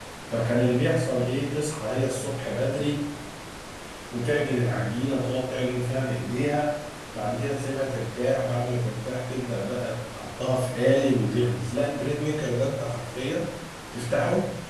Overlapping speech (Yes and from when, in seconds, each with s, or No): No